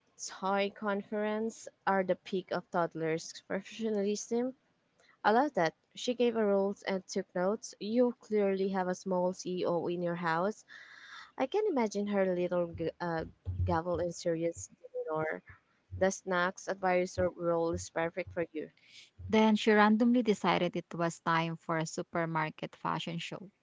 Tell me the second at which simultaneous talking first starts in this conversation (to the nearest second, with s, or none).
none